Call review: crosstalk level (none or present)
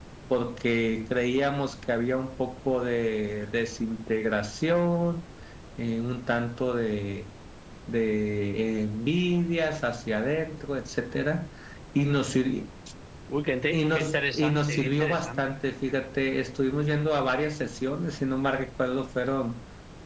present